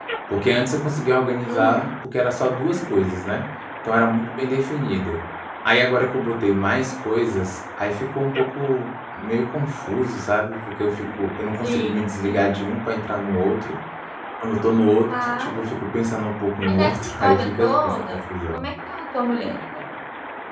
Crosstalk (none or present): present